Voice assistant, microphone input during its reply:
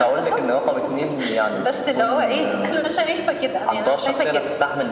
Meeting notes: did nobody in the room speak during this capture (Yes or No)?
Yes